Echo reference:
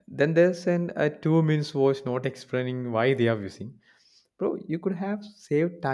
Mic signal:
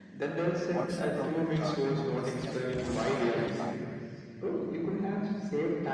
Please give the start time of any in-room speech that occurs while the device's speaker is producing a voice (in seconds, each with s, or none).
0.7 s